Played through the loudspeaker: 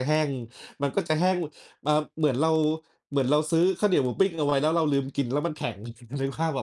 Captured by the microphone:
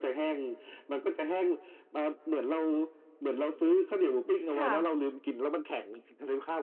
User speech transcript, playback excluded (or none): ค่ะ